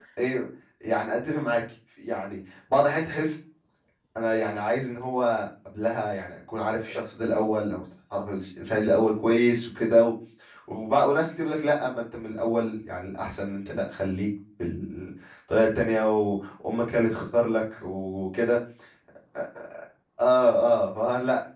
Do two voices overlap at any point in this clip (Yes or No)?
No